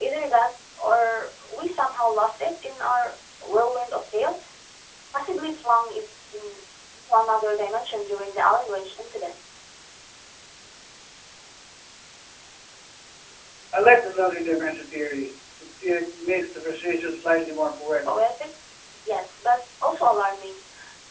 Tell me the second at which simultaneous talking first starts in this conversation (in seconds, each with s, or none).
none